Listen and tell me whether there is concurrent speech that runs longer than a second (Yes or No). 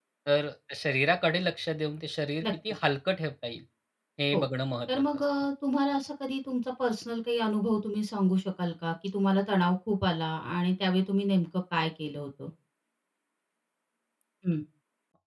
No